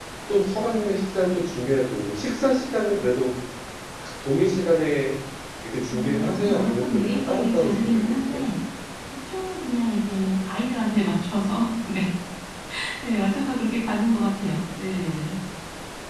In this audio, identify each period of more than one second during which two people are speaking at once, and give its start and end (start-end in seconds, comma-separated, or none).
5.9-8.5